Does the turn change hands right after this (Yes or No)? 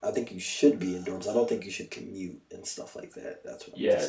Yes